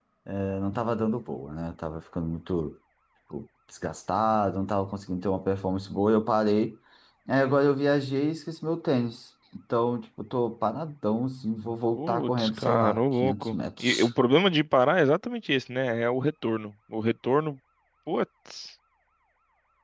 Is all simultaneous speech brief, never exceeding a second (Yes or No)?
No